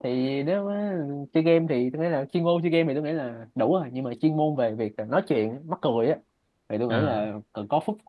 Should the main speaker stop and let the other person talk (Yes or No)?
No